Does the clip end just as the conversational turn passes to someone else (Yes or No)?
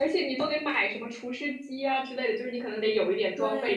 Yes